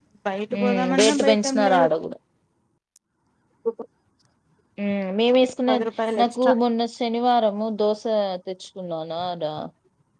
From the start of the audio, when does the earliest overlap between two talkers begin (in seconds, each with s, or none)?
0.6 s